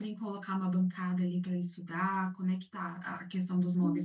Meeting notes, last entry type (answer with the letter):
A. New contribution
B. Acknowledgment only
A